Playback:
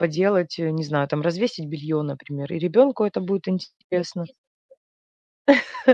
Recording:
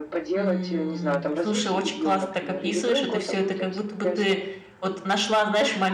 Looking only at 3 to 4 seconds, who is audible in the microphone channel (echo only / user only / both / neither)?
both